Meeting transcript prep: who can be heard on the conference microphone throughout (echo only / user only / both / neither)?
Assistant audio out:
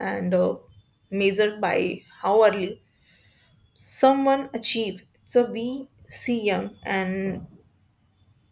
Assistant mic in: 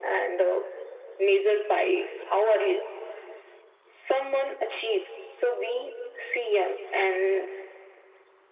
echo only